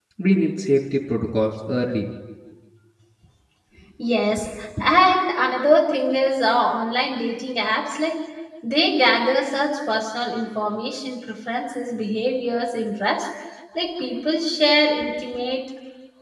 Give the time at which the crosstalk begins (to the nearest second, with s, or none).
none